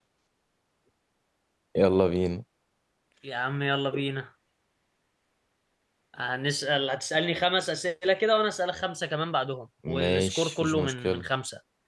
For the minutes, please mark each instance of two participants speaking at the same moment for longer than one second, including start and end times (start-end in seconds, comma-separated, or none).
9.9-11.2